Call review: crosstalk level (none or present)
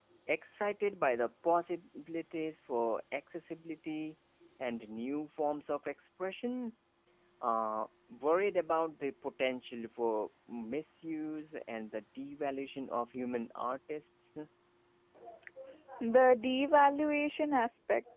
none